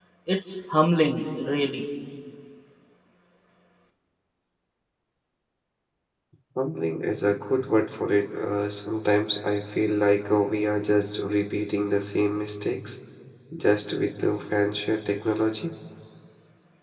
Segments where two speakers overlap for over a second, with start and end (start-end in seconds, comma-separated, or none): none